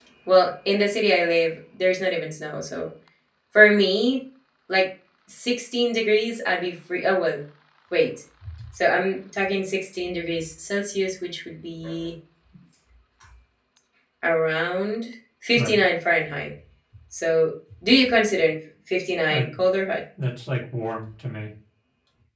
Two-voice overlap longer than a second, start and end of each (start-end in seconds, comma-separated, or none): none